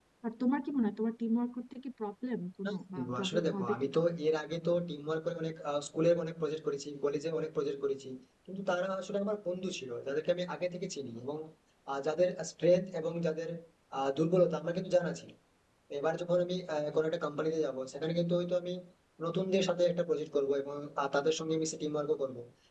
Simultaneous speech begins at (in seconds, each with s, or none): 2.6 s